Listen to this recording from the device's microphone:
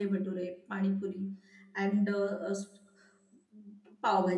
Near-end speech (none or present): present